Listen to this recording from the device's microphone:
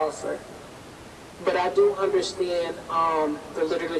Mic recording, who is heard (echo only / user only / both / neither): echo only